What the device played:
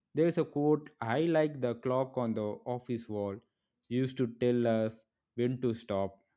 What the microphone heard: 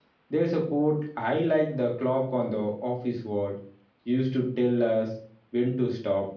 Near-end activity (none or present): none